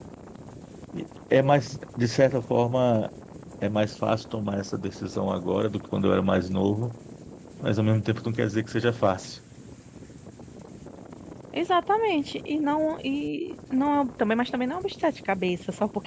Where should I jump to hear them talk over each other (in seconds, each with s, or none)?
none